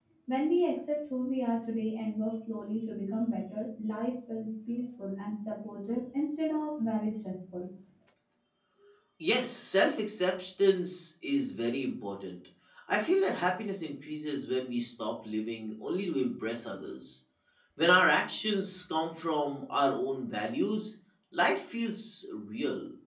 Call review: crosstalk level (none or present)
none